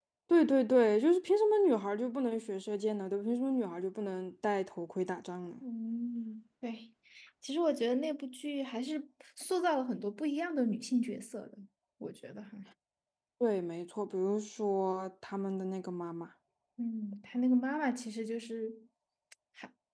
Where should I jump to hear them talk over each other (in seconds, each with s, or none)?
none